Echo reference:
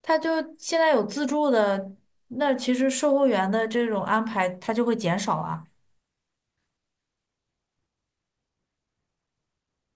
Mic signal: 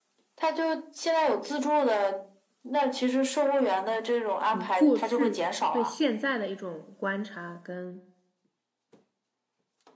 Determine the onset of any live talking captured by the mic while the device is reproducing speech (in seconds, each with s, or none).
4.5 s